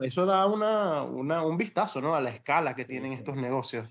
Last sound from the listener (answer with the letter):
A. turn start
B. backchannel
A